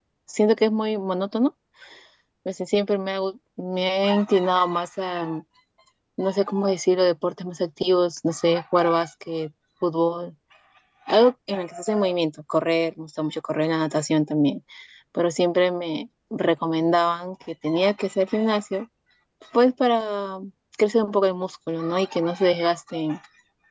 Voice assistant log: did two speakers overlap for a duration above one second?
No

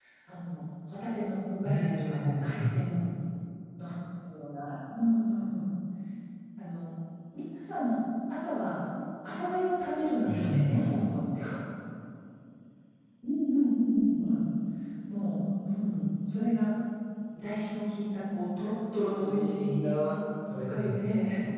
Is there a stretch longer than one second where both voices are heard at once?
Yes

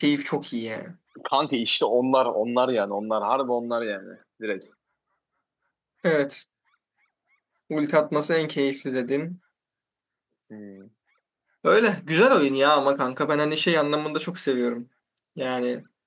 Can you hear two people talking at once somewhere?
No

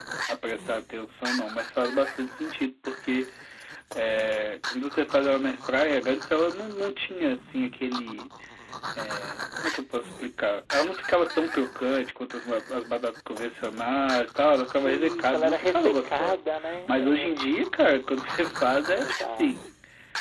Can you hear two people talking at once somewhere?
Yes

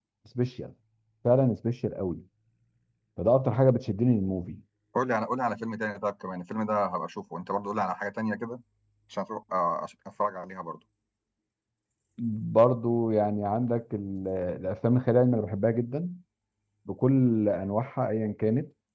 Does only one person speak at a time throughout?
Yes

